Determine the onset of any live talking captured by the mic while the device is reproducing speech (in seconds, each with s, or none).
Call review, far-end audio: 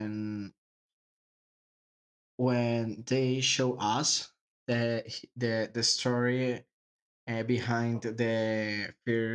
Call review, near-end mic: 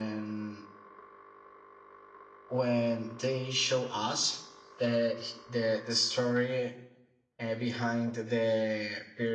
none